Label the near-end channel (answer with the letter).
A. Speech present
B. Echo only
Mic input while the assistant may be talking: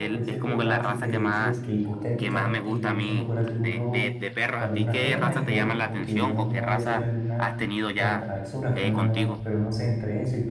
A